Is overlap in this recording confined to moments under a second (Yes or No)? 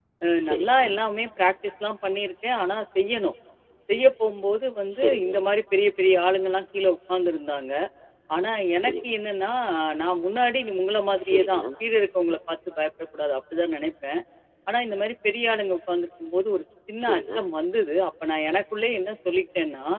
Yes